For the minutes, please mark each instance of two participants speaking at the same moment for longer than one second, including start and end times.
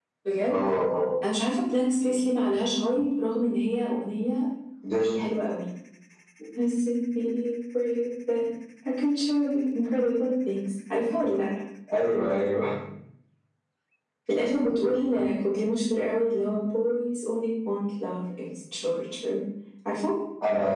none

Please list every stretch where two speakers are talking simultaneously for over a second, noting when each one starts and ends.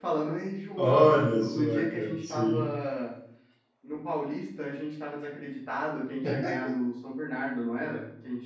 0.8-2.6

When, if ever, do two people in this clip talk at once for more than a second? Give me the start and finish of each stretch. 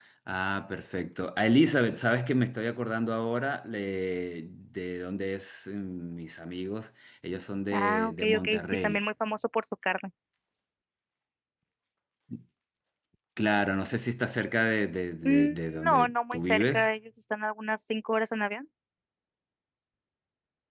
7.7-9.0, 15.2-16.9

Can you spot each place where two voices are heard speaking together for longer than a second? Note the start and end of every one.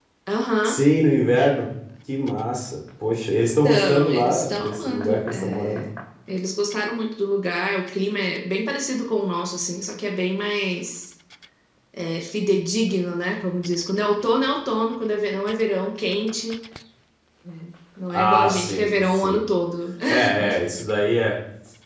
3.6-5.8, 18.1-19.4

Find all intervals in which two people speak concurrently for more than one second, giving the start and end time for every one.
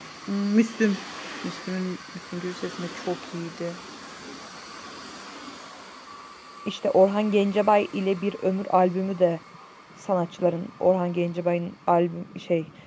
none

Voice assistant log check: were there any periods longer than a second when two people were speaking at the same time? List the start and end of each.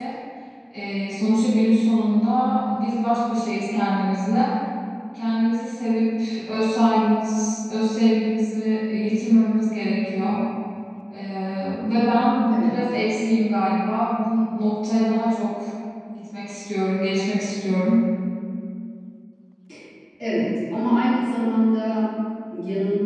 none

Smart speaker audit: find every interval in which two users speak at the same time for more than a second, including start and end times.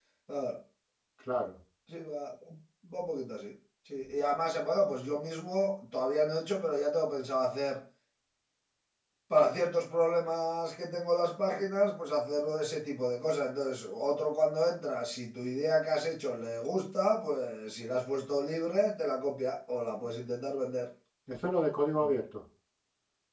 none

